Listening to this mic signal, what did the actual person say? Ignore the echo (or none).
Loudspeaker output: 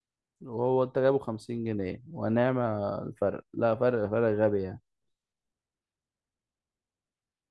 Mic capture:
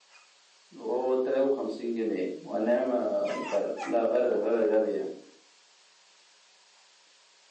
none